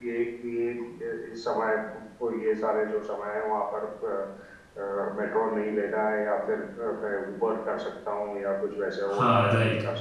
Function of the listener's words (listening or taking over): taking over